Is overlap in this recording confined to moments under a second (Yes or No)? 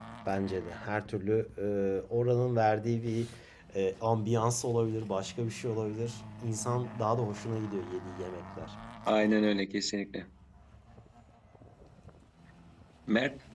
Yes